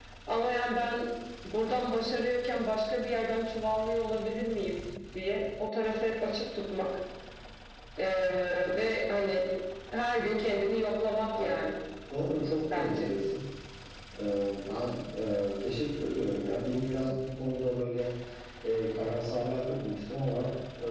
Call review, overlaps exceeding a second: none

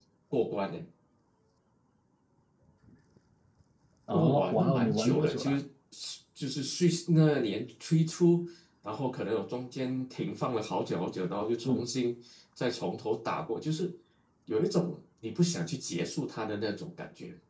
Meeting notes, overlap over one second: present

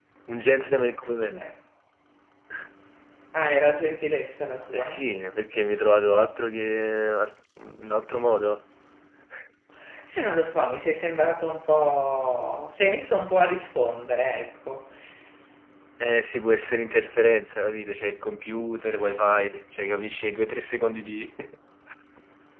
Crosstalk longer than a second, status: none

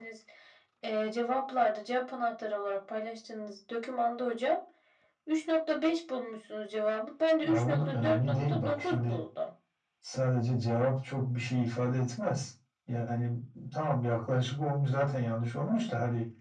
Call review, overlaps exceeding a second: present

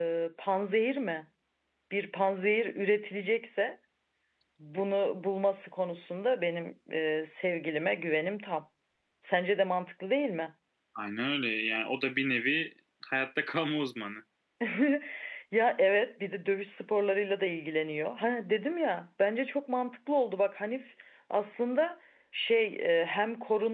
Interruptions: none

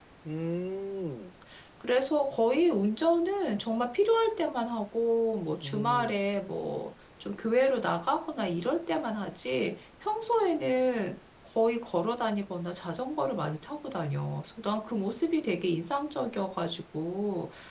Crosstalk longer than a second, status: none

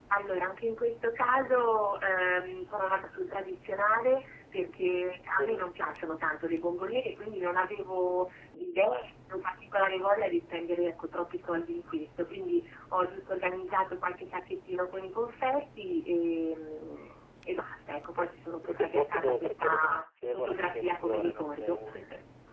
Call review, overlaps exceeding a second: present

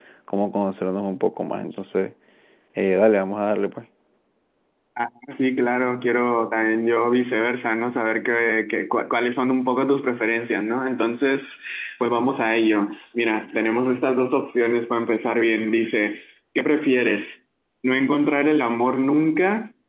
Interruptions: none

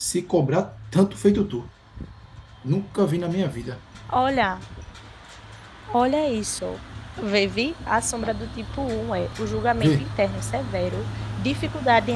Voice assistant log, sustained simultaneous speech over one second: none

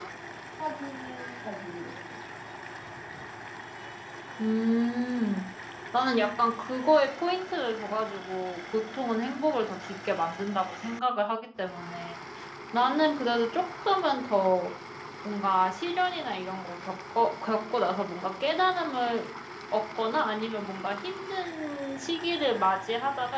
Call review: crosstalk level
none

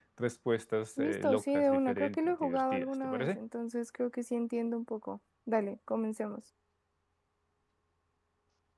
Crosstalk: present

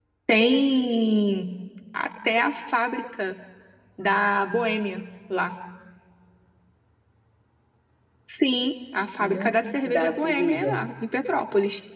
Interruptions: present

